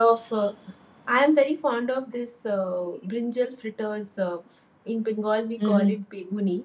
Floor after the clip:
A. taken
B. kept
B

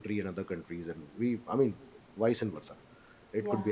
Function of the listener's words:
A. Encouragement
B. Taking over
A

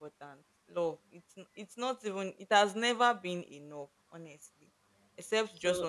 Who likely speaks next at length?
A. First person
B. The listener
A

